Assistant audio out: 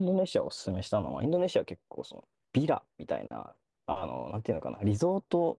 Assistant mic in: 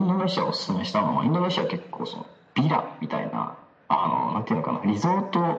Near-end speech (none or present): none